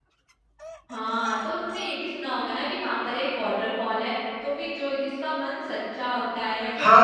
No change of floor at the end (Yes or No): No